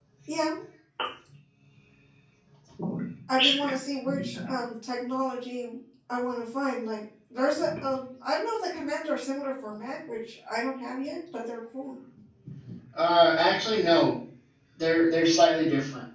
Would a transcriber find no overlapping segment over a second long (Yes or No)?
Yes